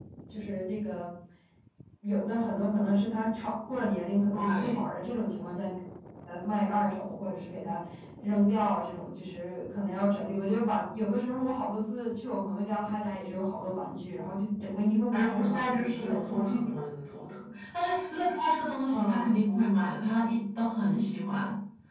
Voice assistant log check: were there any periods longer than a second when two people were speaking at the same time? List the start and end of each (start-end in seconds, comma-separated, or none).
15.1-16.6